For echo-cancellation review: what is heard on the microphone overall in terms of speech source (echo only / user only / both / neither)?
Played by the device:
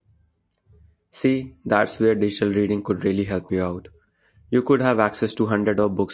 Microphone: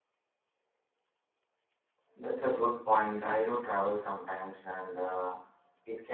user only